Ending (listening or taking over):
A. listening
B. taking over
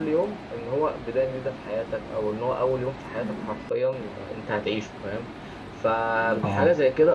A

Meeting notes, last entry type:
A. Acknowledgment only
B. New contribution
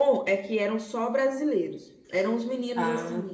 A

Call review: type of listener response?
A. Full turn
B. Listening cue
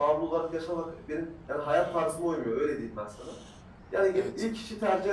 B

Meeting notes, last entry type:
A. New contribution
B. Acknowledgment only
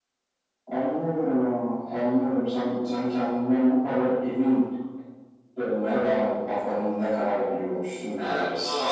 A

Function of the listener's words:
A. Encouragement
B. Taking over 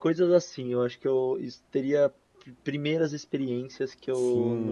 B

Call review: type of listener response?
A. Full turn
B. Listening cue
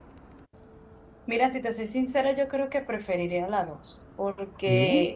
B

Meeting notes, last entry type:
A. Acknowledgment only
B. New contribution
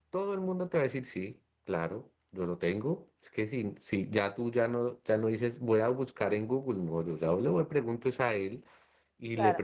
A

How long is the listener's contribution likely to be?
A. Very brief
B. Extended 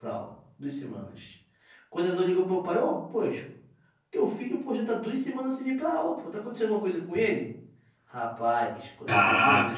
A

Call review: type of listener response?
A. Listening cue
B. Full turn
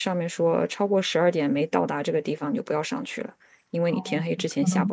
B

